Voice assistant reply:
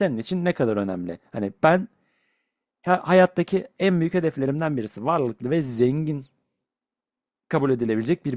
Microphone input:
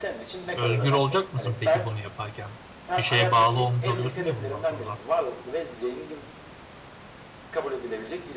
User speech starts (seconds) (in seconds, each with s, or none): 0.6 s